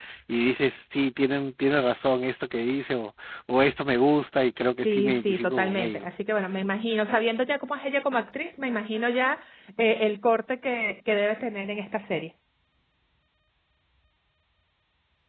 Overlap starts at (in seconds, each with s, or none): 4.8 s